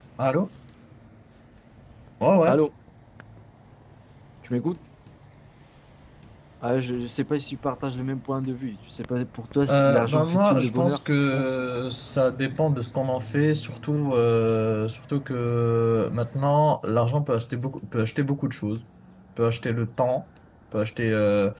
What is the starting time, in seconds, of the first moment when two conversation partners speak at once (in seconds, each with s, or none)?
9.7 s